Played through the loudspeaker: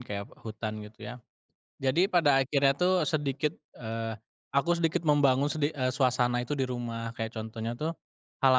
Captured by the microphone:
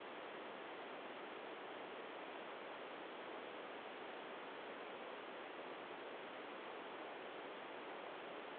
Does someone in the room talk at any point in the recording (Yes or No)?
No